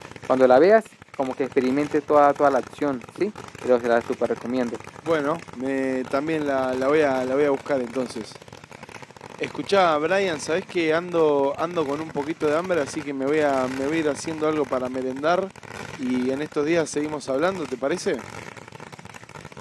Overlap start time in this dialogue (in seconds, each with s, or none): none